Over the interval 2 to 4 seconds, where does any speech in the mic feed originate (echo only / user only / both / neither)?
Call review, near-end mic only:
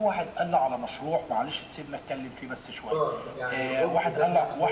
both